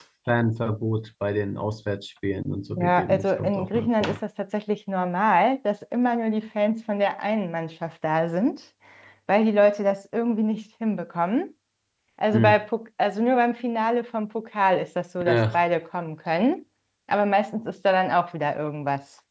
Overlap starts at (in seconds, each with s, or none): 2.8 s